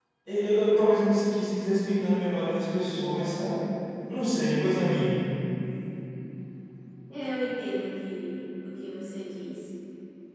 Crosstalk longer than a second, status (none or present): none